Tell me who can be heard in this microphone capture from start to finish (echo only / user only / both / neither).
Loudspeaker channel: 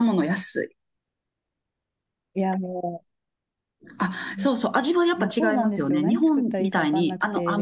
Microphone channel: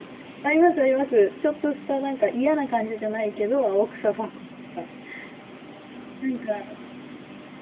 user only